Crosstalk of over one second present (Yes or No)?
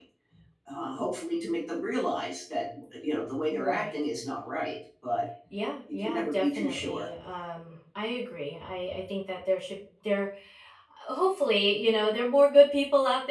Yes